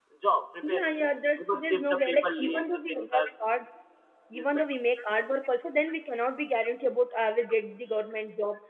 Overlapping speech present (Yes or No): Yes